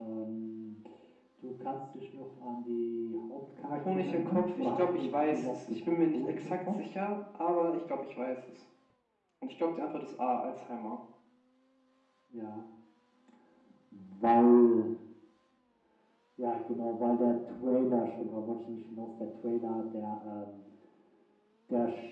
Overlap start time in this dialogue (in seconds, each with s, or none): 3.7 s